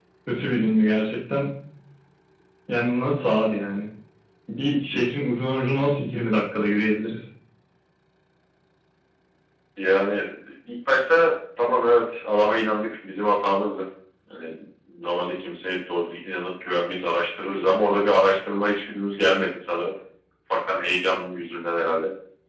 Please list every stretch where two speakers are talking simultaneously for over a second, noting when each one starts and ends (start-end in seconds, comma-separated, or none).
none